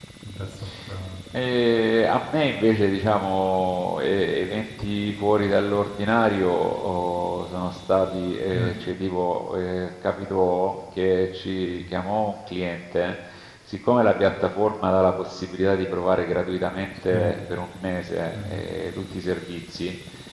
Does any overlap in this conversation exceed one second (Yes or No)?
No